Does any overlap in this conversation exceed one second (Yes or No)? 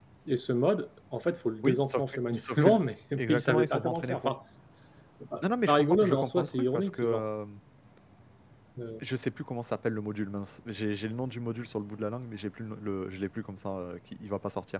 Yes